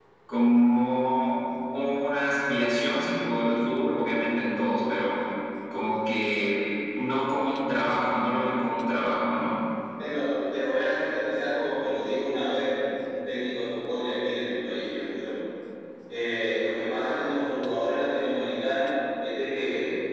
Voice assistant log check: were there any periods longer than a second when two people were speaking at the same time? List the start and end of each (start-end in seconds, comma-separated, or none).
none